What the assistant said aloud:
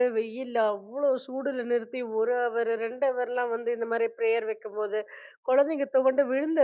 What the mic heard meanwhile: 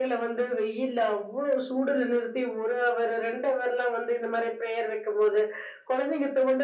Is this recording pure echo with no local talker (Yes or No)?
Yes